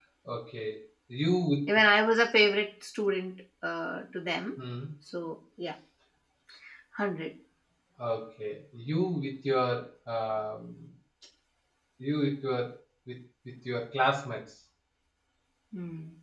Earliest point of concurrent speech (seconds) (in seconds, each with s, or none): none